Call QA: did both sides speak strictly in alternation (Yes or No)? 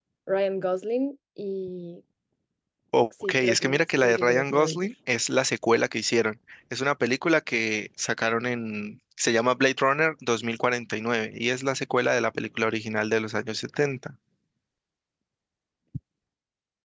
No